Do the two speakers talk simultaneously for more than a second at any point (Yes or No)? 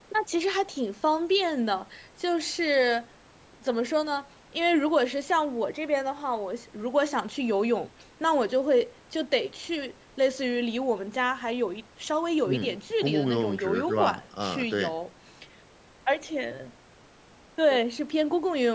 Yes